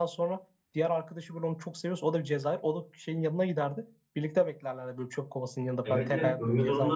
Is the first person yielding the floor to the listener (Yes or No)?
Yes